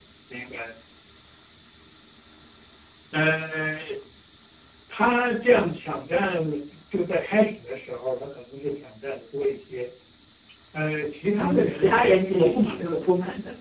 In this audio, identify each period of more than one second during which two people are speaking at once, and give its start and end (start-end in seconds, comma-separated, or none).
11.4-12.9